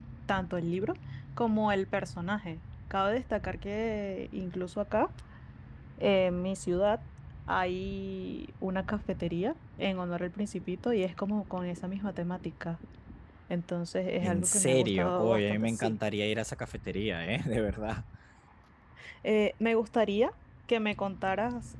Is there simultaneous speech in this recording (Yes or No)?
Yes